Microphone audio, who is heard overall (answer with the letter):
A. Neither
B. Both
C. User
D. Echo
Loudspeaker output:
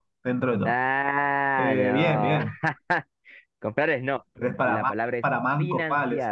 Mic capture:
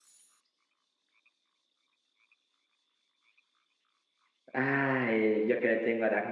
C